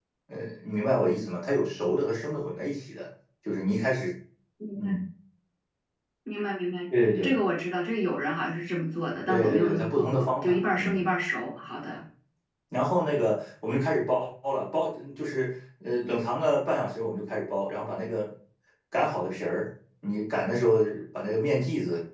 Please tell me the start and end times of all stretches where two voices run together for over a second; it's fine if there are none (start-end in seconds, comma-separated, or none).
9.3-11.0